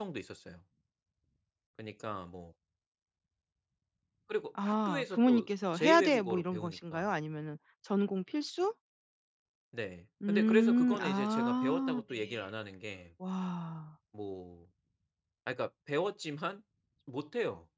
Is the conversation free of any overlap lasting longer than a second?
No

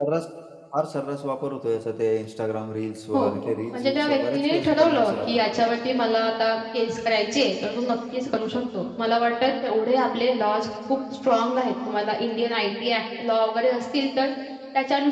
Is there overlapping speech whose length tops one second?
Yes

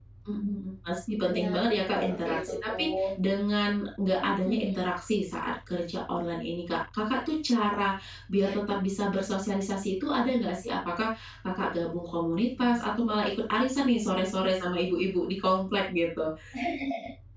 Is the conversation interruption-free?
No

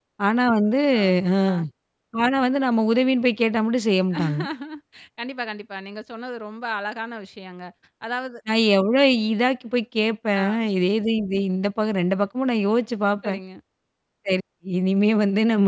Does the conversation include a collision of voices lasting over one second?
No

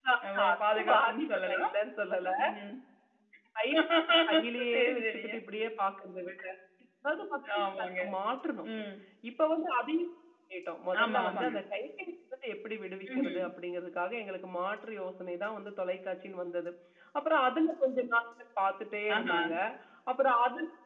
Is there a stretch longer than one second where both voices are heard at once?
Yes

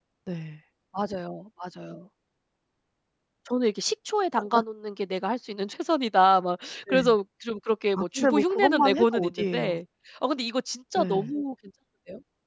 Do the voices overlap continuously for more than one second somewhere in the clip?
Yes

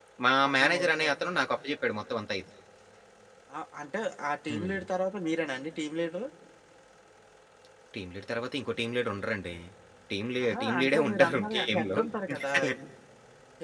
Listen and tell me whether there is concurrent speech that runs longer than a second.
Yes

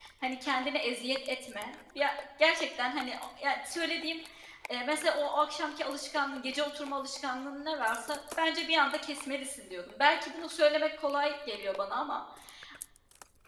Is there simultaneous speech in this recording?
No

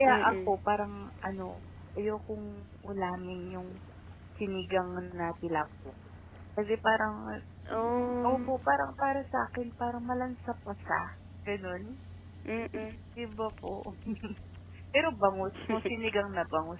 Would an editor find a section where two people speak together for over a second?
No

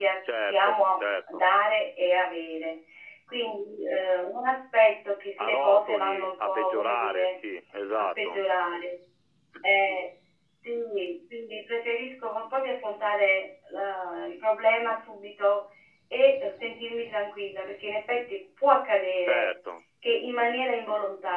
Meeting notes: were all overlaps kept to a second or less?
No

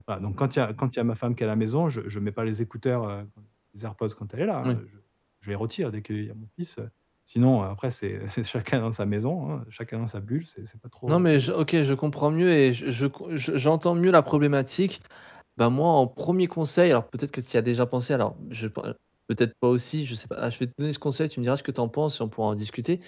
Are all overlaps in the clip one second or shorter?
Yes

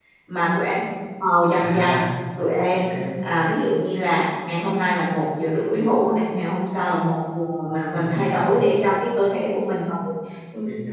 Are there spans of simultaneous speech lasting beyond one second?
No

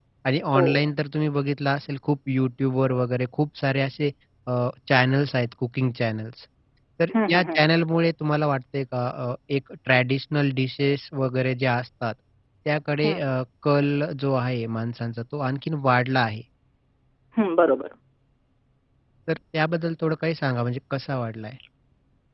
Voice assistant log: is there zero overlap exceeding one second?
Yes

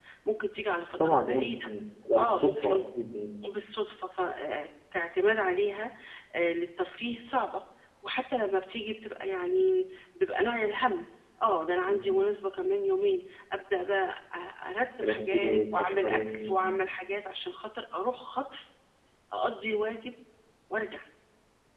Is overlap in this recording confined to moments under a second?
No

